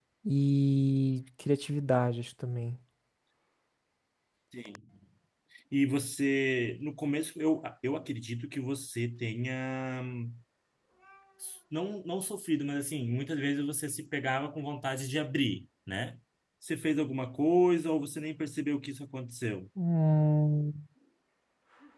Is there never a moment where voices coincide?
Yes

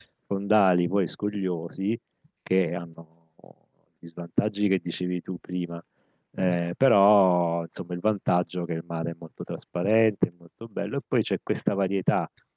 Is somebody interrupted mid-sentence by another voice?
No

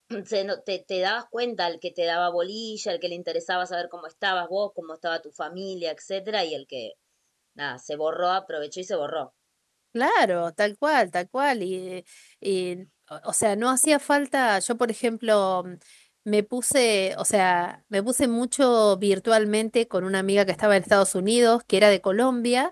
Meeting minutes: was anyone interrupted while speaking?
No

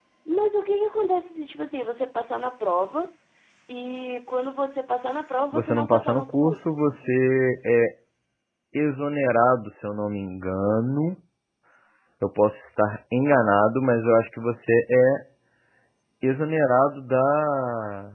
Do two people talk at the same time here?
Yes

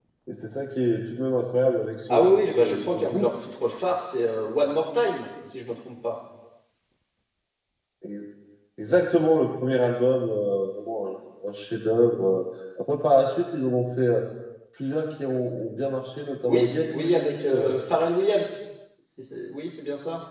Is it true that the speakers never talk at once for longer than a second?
No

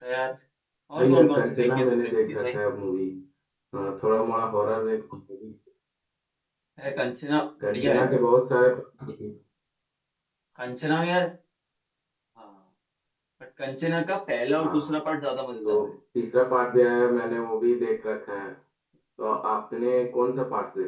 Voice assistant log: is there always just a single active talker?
No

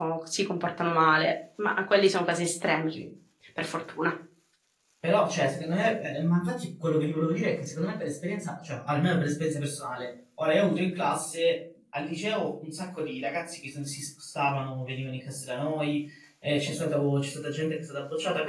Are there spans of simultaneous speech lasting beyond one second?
No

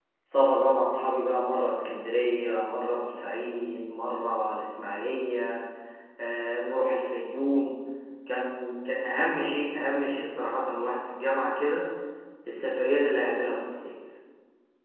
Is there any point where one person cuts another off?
No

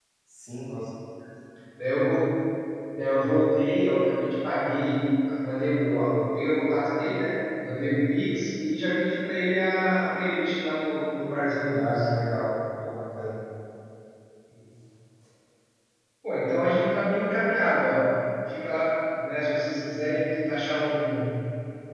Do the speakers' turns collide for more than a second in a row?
No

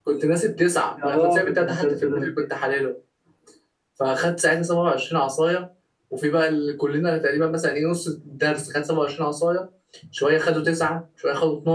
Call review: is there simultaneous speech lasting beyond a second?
Yes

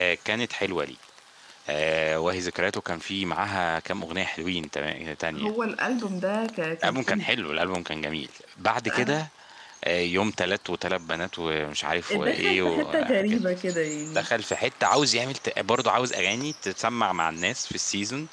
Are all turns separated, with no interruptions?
No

